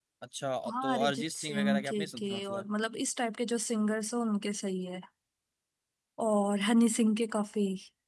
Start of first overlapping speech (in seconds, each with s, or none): 0.7 s